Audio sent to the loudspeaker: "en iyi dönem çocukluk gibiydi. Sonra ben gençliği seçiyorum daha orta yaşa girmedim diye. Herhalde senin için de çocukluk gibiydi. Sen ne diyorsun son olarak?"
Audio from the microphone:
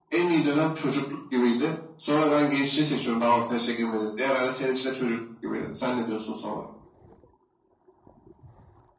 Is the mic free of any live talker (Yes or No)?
Yes